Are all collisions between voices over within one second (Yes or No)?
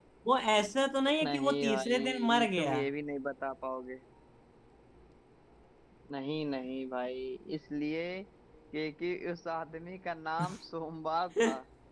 No